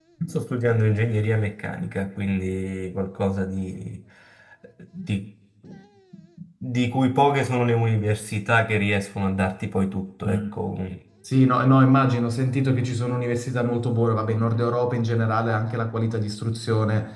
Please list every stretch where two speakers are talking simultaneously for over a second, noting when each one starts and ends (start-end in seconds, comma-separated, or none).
none